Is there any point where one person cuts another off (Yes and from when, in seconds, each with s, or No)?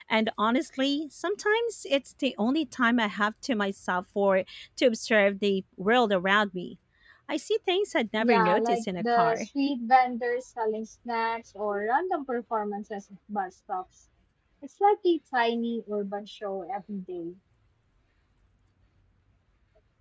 Yes, from 8.2 s